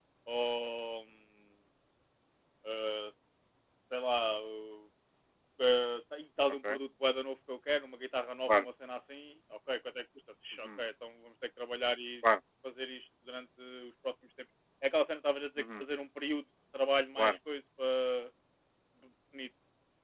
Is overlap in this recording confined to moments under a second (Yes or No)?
Yes